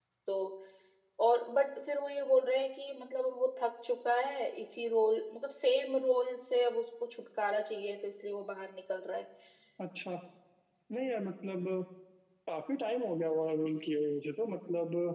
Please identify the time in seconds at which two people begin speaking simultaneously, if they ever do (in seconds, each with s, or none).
none